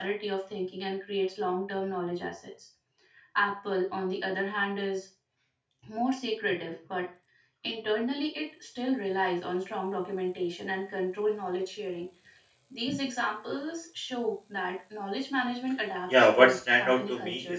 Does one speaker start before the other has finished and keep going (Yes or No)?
Yes